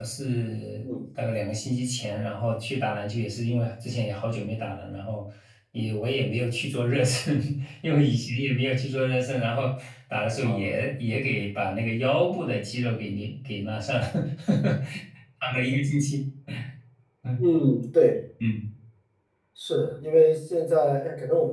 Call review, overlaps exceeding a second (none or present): none